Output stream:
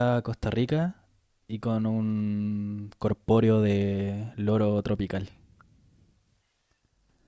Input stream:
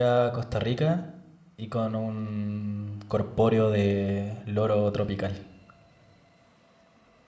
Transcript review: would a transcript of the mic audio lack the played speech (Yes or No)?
No